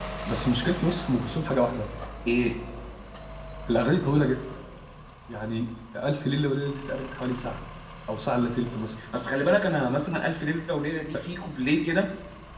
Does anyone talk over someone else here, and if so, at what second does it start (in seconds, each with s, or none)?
none